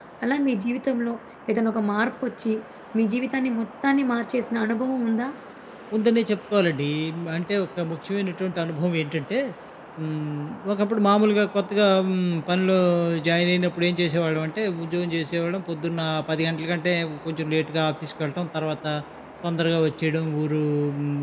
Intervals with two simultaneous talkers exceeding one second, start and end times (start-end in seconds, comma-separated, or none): none